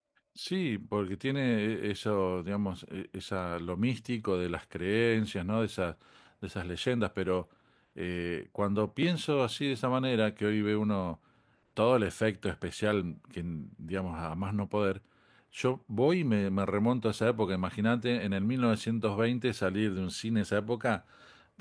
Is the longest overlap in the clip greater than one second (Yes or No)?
No